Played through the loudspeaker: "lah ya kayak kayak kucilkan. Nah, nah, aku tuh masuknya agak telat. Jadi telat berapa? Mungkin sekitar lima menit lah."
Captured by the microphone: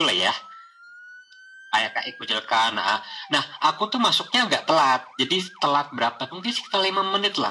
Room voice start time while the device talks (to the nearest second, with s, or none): none